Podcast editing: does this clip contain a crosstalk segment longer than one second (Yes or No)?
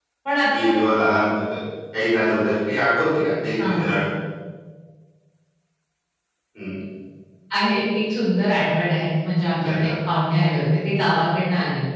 No